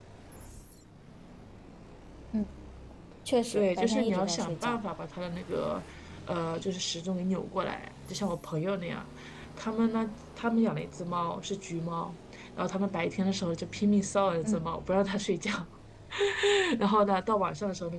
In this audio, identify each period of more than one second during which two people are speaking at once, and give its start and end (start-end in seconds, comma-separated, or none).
3.5-4.8